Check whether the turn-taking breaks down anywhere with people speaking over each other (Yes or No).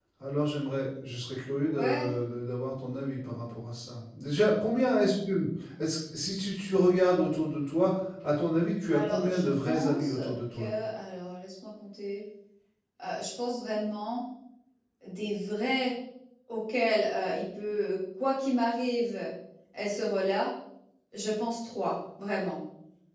Yes